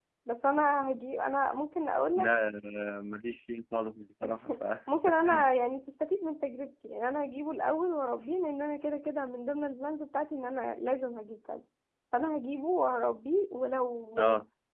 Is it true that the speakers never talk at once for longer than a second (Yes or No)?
Yes